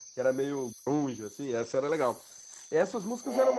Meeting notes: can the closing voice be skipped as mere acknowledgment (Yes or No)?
Yes